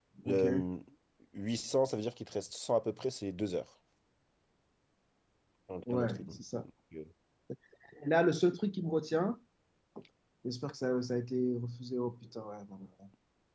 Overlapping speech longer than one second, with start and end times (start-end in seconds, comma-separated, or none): none